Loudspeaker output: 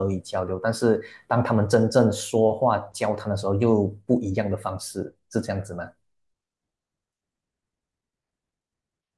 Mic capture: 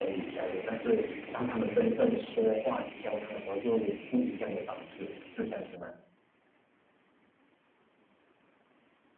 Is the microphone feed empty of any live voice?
Yes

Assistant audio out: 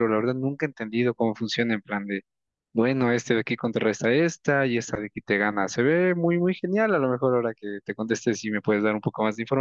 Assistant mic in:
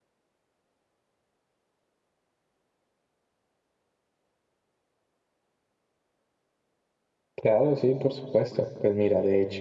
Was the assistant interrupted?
Yes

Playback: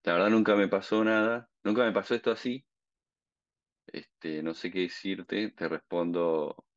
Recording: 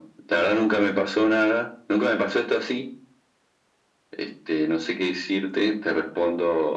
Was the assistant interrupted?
No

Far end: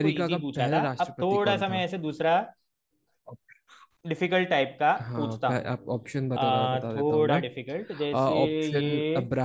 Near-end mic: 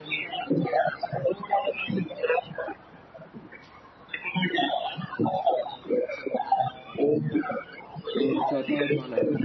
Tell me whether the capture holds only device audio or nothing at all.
No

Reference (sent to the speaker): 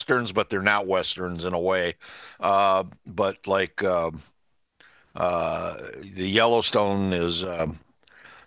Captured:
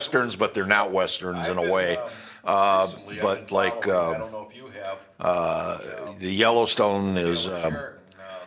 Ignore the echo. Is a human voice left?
Yes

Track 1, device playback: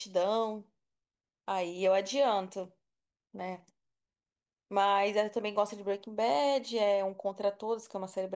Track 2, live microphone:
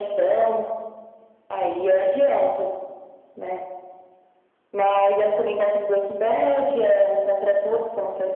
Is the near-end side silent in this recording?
Yes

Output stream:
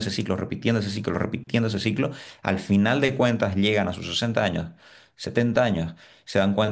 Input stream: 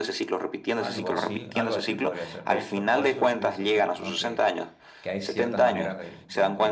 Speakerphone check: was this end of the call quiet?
No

